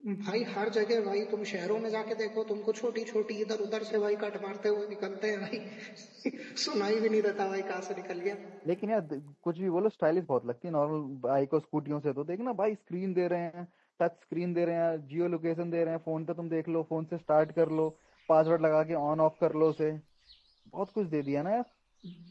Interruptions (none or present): none